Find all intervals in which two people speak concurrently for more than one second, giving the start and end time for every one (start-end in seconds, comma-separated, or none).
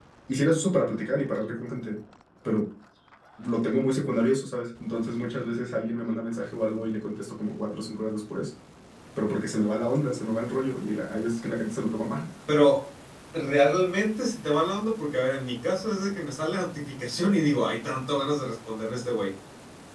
none